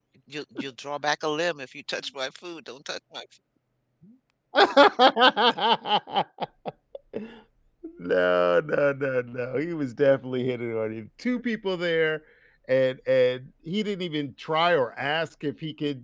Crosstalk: none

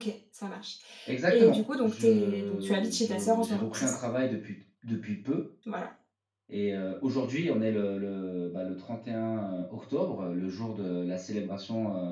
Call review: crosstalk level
present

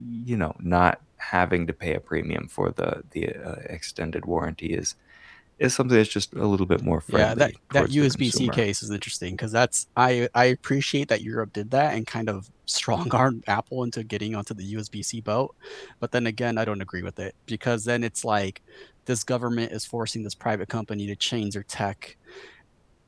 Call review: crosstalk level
present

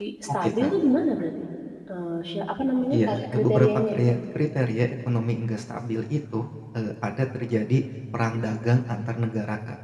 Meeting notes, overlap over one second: present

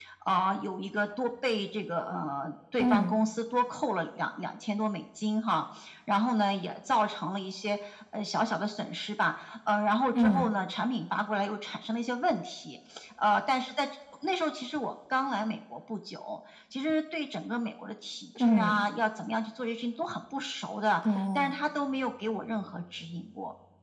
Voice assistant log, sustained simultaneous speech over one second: none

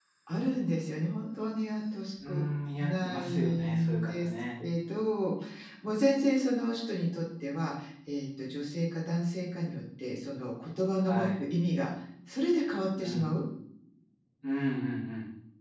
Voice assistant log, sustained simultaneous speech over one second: present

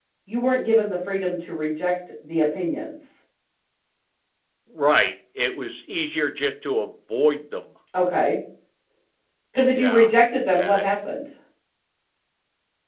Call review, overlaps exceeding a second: none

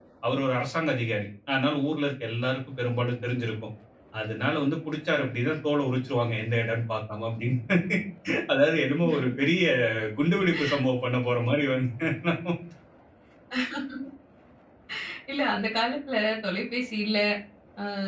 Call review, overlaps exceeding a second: none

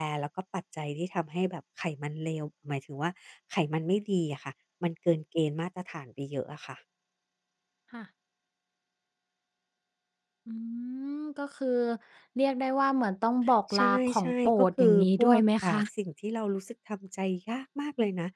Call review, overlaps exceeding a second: present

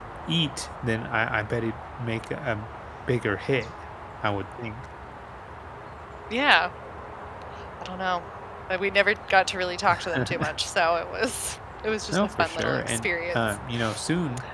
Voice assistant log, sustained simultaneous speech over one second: present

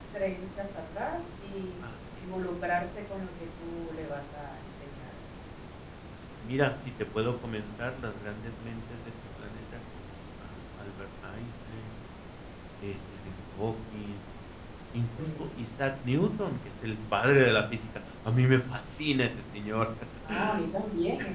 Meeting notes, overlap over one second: none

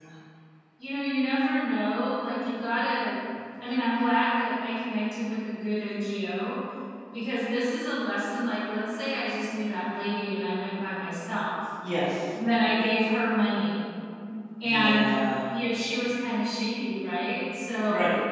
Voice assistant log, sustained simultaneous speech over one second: none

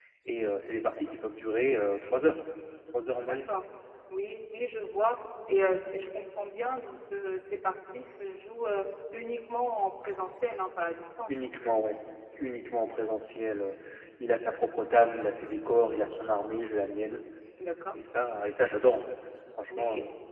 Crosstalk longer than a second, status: none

